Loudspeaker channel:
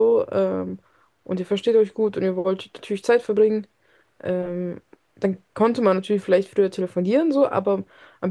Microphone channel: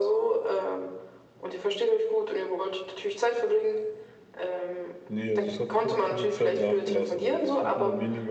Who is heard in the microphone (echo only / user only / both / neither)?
both